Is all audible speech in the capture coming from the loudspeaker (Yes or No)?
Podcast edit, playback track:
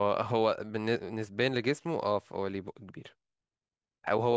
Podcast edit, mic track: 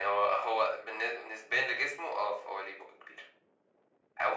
Yes